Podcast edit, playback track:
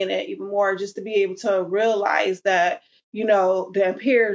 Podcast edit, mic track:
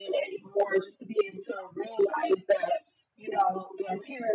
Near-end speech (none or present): none